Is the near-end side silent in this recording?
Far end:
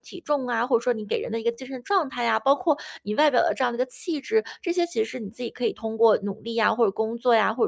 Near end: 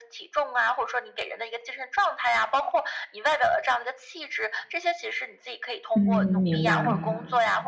No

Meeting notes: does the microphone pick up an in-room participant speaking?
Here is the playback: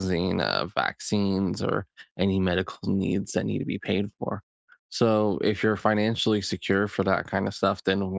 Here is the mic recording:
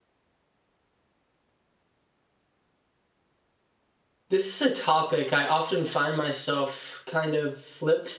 Yes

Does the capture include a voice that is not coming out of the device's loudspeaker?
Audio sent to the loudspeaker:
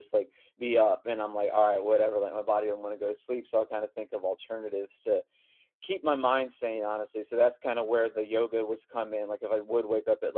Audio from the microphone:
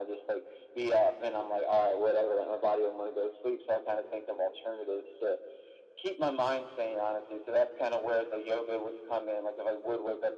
No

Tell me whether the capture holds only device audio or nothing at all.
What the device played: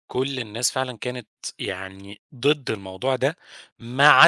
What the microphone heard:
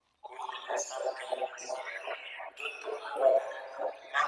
Yes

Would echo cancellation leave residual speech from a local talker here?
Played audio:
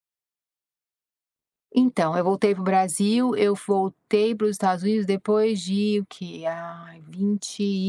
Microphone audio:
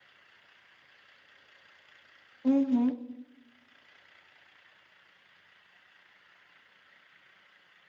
Yes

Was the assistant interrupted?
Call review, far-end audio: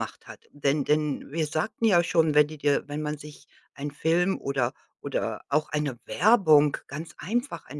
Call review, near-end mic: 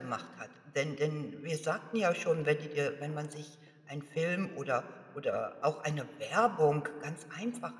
No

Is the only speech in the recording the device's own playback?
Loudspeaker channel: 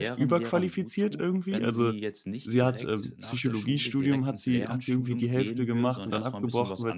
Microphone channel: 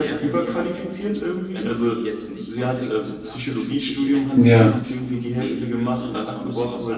No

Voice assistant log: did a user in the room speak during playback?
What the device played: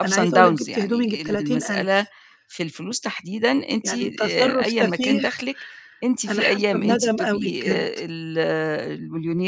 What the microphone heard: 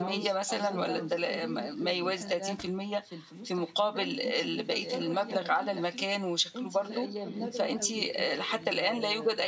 Yes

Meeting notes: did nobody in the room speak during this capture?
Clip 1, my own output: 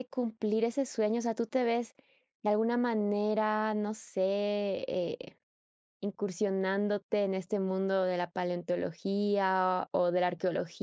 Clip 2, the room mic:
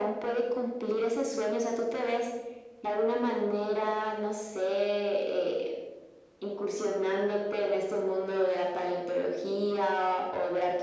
Yes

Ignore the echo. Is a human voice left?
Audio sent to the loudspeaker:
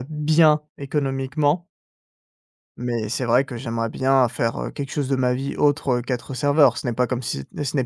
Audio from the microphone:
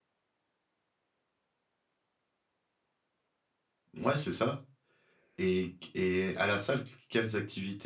Yes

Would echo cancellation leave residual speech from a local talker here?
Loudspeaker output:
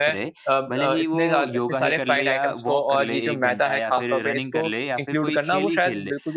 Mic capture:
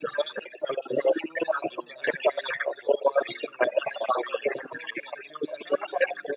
No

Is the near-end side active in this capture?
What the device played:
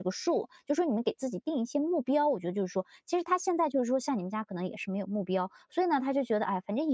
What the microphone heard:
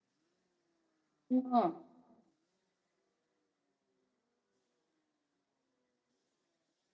Yes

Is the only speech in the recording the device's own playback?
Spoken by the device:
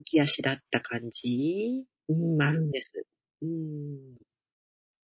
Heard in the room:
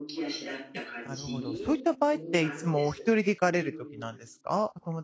No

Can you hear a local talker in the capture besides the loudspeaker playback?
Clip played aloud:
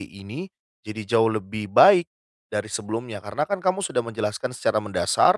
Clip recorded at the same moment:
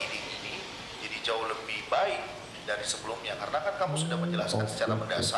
Yes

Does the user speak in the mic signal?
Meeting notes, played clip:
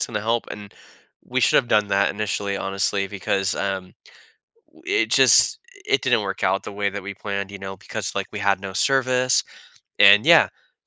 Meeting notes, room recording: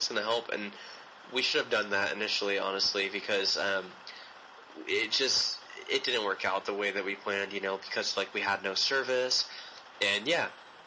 No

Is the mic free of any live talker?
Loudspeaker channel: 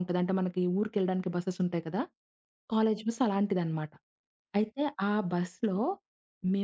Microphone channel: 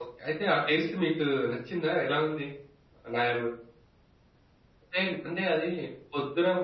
No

